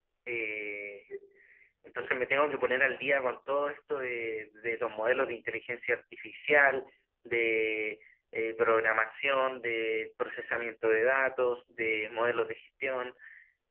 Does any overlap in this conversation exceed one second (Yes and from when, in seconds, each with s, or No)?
No